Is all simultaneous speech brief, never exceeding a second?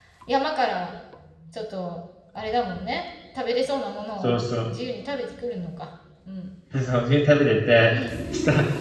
Yes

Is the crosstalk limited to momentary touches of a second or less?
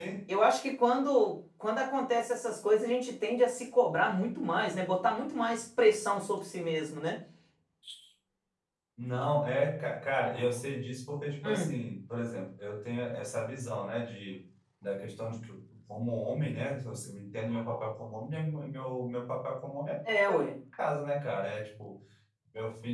Yes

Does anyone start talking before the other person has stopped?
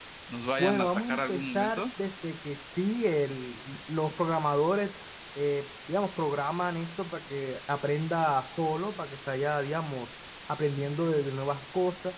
Yes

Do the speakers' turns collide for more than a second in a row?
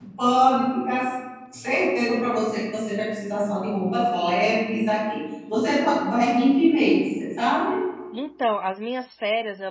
No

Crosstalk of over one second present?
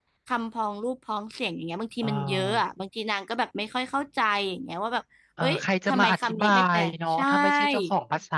Yes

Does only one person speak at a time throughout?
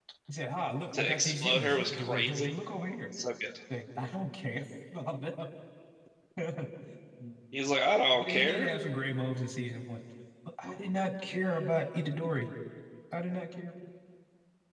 No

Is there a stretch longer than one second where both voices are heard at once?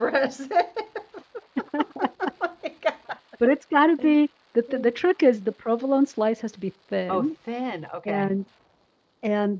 No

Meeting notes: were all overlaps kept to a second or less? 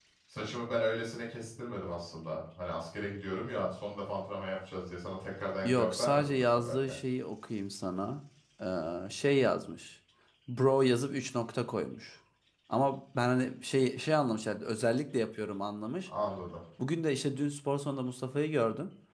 No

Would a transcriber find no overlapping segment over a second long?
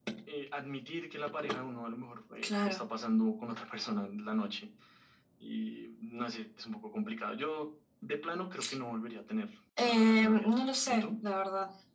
No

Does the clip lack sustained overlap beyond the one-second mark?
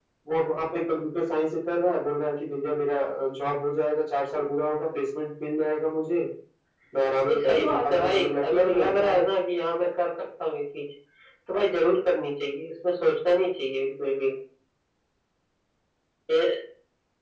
No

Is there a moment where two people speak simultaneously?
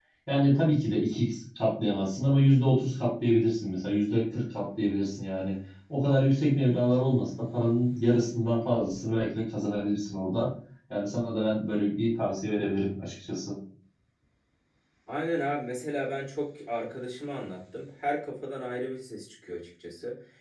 No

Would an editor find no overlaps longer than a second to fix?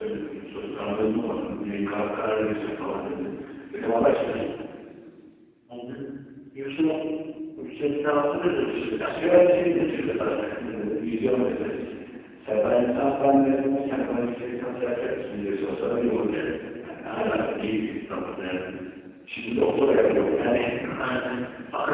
No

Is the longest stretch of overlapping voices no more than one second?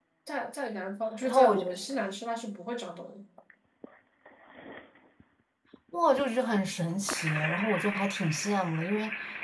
Yes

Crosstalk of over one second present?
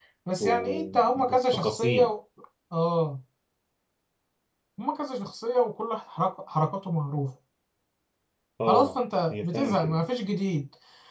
Yes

